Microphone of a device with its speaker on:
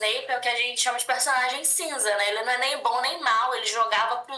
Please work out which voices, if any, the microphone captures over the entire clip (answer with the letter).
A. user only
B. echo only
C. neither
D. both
B